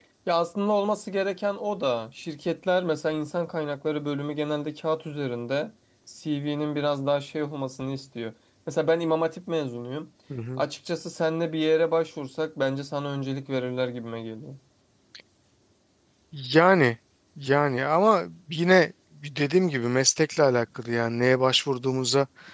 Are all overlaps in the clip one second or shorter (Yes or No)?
Yes